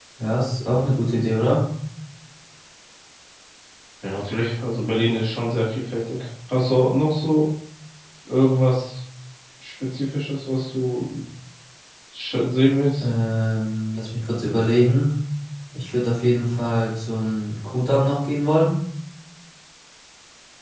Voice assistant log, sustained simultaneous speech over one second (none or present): none